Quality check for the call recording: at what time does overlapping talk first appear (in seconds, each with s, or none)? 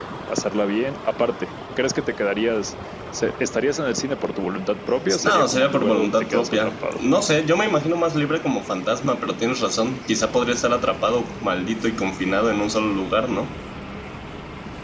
5.1 s